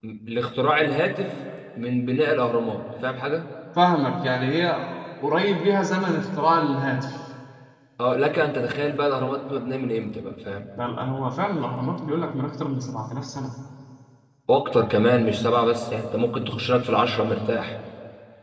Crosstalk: none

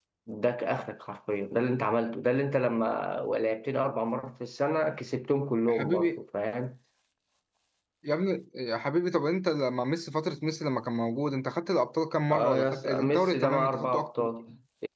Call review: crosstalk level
present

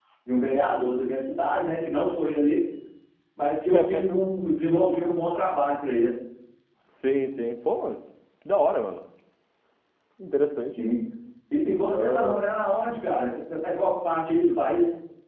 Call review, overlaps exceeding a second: none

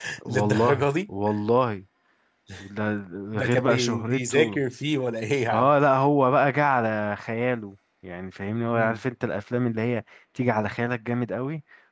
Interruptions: present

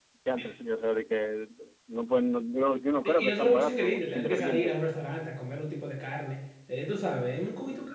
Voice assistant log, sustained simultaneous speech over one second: present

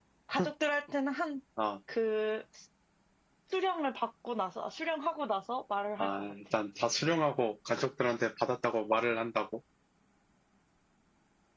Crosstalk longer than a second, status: none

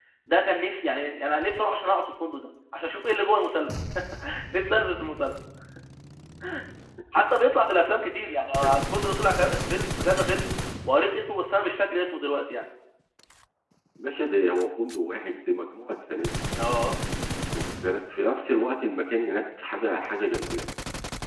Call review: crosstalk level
none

